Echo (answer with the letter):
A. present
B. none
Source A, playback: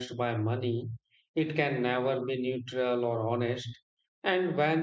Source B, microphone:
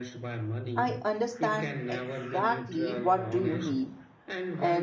A